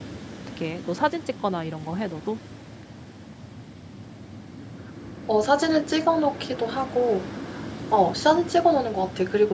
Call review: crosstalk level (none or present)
none